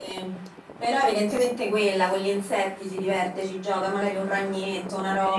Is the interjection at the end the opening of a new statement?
Yes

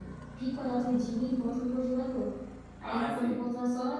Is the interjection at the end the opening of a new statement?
No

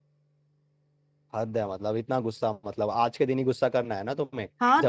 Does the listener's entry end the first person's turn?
Yes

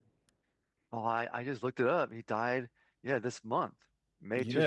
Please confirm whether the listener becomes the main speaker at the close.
Yes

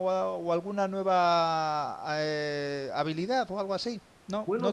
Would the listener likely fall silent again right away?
No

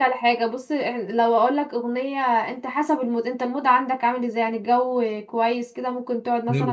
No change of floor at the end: Yes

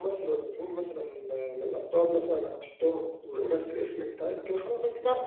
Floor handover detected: Yes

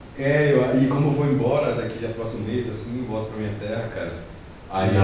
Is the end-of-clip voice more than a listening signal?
No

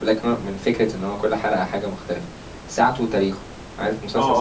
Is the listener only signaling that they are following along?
No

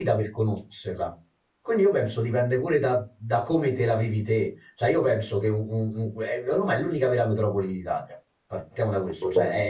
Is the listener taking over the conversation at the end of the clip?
No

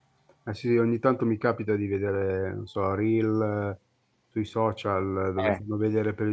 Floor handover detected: No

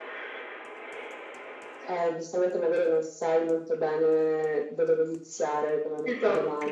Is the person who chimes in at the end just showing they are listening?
Yes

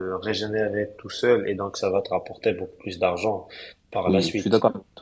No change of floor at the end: No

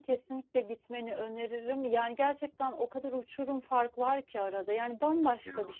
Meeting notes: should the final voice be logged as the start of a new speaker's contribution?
No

